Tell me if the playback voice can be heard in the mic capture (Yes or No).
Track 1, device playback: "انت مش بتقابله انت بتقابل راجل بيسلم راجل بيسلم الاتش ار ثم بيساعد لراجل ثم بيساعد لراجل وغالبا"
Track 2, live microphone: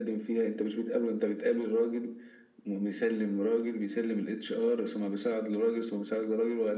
Yes